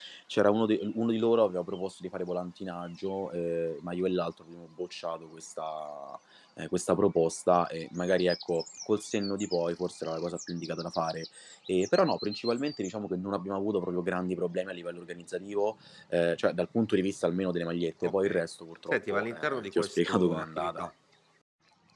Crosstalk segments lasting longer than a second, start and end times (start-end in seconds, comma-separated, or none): 18.9-20.9